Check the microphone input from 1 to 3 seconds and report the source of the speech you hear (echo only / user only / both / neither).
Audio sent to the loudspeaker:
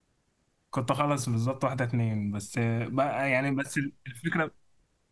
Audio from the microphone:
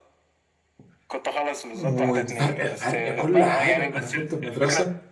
both